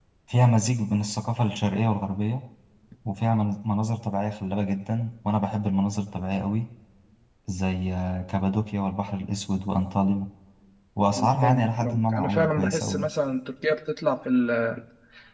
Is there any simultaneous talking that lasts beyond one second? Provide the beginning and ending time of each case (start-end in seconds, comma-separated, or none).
11.1-13.1